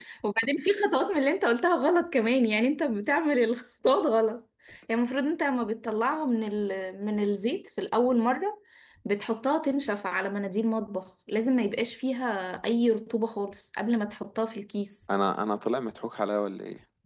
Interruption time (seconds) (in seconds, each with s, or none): none